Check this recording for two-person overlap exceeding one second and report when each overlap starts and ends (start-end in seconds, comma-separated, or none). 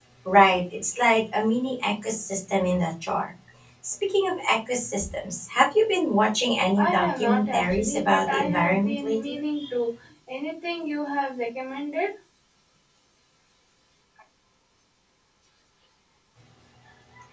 6.8-9.4